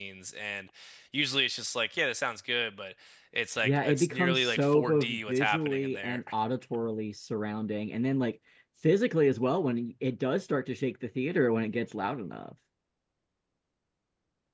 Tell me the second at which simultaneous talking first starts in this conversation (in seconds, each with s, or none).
3.6 s